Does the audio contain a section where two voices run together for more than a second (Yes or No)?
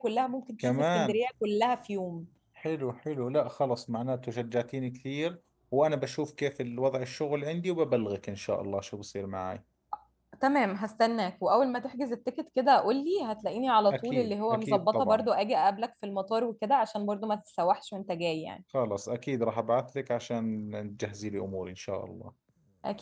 Yes